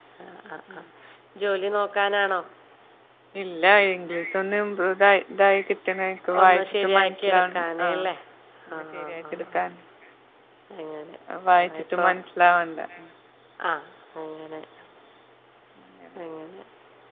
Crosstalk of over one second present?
Yes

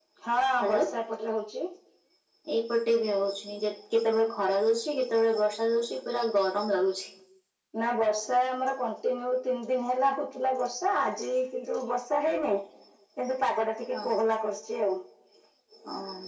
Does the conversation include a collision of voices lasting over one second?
No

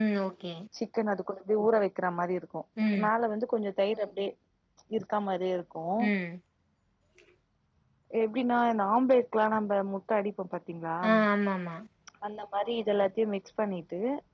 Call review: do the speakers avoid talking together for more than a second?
Yes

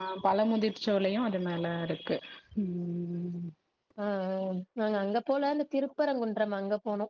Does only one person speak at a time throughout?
Yes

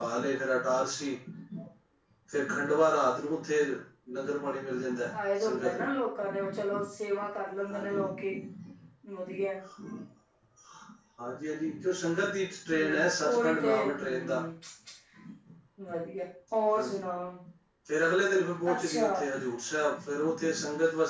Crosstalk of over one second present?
Yes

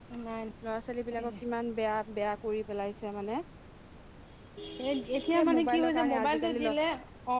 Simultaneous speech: Yes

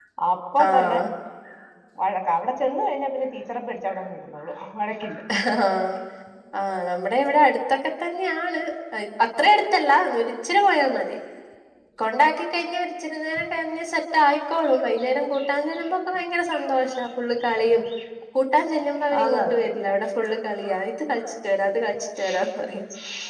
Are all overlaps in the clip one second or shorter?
Yes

